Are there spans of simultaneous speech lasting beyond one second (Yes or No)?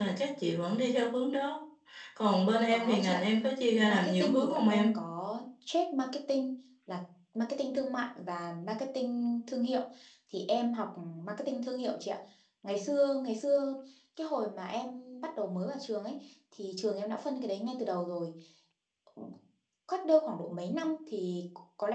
Yes